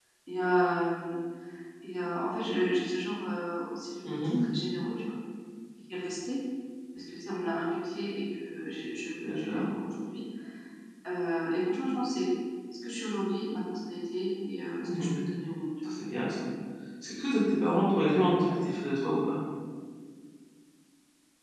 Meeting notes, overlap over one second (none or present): none